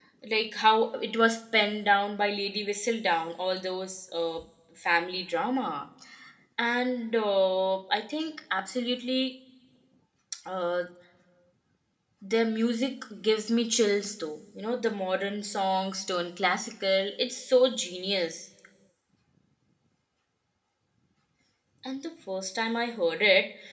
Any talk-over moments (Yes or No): No